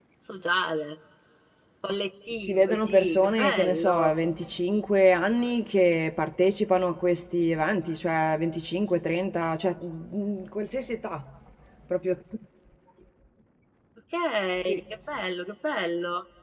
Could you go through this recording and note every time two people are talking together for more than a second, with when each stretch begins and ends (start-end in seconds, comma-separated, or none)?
2.4-4.1